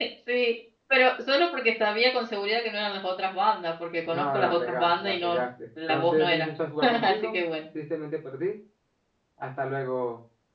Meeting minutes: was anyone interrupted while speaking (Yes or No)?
Yes